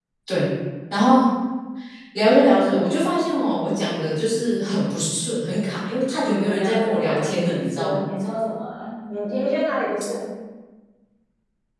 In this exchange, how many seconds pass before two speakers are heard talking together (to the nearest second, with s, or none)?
6 s